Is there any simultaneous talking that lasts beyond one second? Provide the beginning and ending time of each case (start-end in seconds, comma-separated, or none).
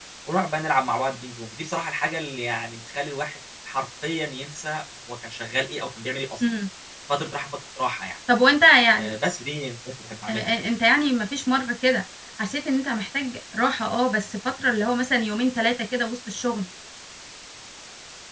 none